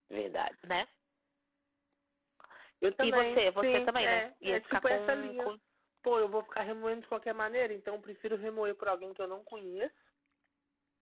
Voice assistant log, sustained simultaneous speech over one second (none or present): present